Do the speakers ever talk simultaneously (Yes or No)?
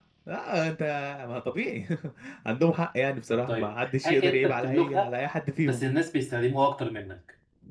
Yes